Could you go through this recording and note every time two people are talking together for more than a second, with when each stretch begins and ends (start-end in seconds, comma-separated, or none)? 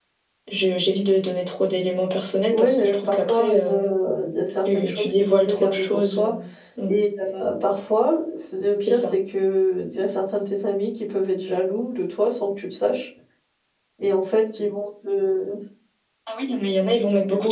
2.5-3.8, 4.5-6.2